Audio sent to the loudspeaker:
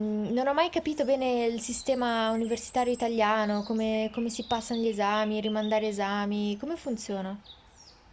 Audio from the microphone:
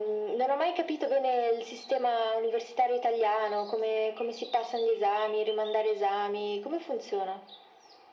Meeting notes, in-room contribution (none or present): none